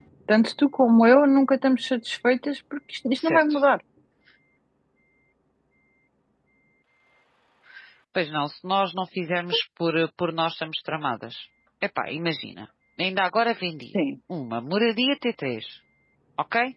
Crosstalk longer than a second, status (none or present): none